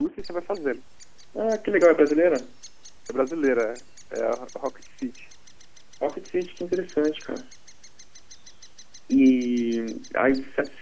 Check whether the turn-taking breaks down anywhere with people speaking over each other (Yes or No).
No